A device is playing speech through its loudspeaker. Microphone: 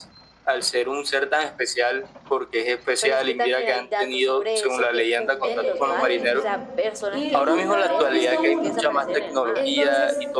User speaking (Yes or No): Yes